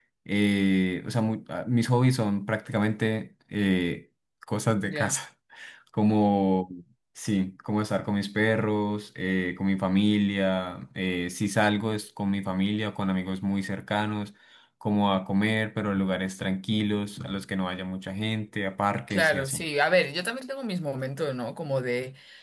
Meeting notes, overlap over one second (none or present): none